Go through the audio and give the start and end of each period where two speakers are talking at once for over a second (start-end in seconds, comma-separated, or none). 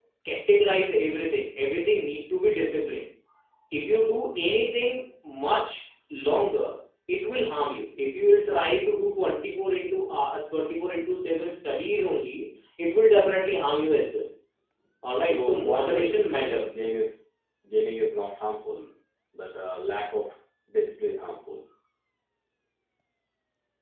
15.2-16.7